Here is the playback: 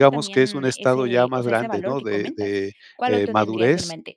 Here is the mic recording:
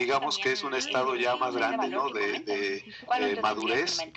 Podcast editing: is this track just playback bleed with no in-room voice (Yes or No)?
No